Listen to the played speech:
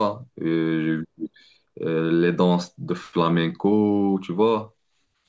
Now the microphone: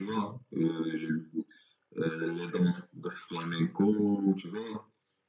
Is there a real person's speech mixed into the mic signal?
No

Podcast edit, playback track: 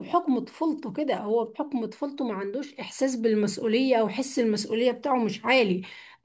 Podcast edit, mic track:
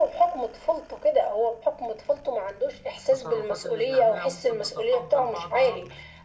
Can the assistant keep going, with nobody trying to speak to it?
No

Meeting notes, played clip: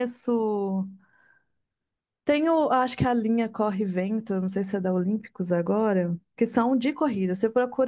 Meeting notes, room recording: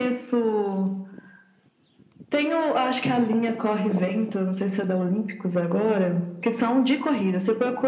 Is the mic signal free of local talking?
Yes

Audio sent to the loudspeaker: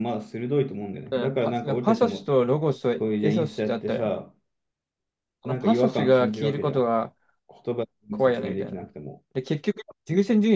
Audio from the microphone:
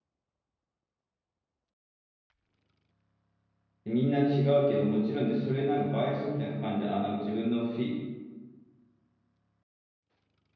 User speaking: Yes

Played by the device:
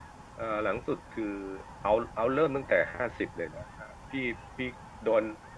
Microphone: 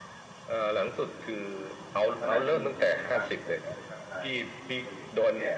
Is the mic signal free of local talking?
No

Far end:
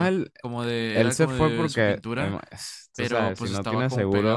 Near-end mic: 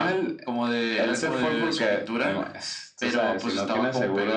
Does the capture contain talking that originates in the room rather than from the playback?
No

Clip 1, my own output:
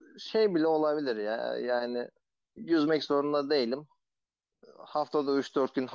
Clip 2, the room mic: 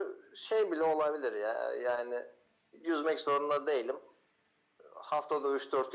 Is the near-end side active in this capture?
No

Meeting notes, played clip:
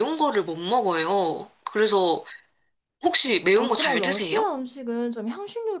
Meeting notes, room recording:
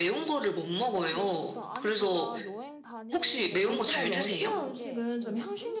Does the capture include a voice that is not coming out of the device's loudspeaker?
Yes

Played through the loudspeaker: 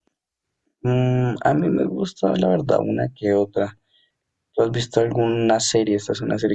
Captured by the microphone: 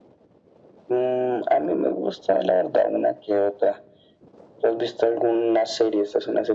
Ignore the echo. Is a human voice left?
No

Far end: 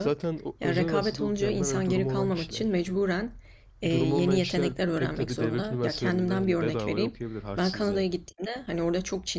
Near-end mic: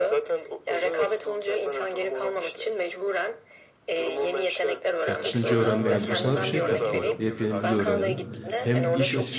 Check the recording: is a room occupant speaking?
Yes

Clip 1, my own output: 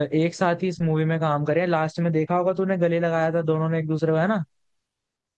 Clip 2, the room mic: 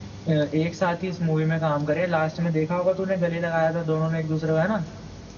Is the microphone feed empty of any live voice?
Yes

